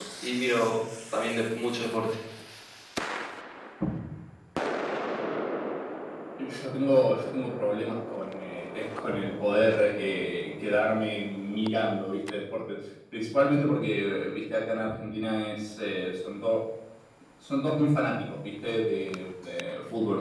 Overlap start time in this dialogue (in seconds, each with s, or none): none